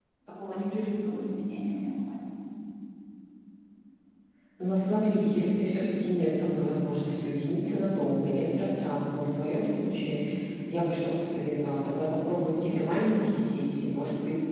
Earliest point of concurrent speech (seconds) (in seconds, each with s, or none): none